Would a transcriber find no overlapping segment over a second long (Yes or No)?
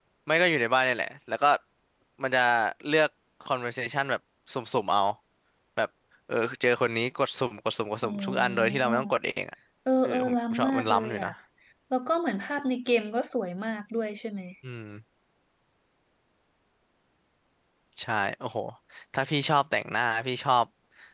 No